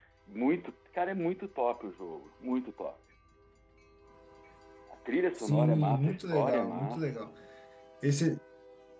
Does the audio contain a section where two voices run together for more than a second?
Yes, from 5.4 s

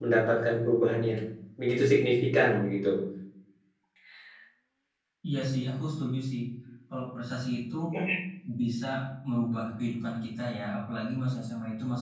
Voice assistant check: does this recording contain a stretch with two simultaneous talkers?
No

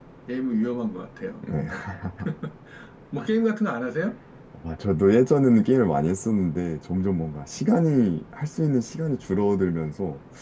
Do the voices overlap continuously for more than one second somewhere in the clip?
No

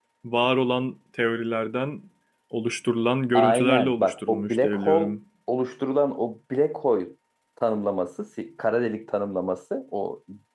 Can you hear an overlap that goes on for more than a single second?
Yes, from 3.3 s

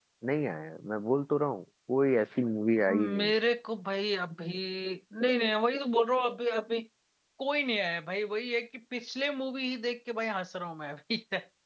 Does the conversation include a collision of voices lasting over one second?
No

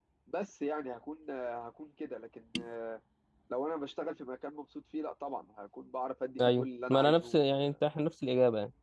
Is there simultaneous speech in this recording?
Yes, from 6.4 s

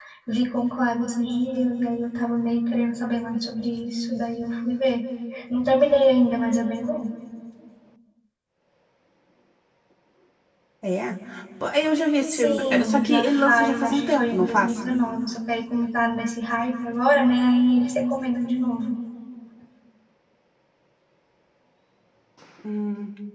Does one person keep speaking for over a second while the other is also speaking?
Yes, from 12.3 s

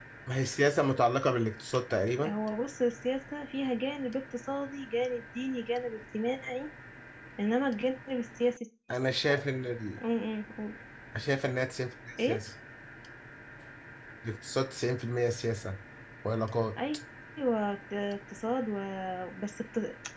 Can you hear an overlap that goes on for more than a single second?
No

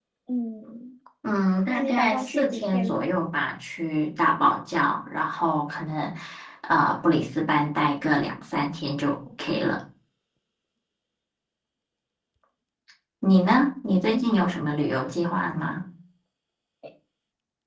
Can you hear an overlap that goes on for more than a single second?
Yes, from 1.7 s

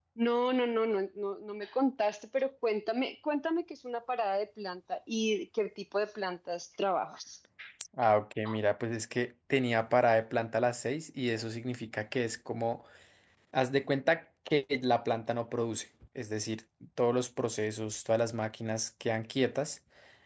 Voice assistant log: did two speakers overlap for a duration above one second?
No

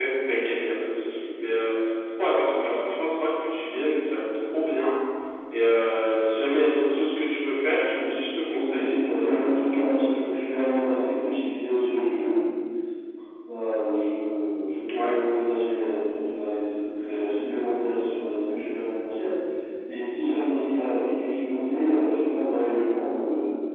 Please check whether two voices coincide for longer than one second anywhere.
Yes, from 8.6 s

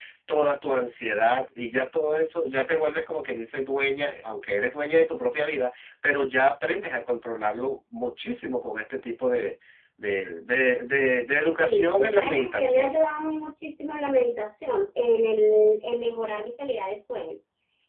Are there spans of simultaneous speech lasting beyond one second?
Yes, from 11.6 s

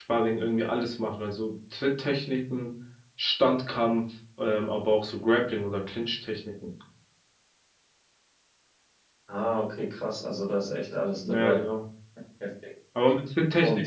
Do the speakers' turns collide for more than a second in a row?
No

